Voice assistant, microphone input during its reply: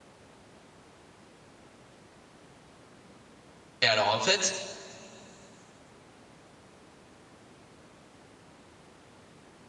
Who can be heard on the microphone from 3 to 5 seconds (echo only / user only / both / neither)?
user only